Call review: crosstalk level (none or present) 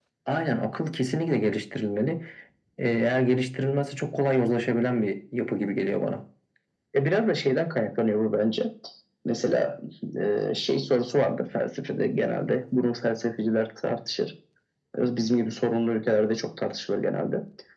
none